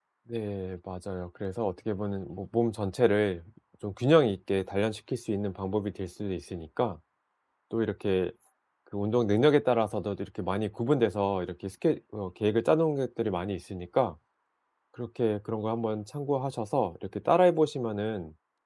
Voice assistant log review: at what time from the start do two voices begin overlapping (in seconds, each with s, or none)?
none